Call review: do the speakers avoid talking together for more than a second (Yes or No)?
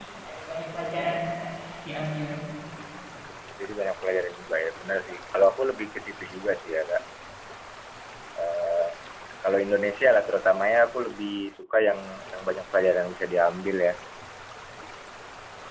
Yes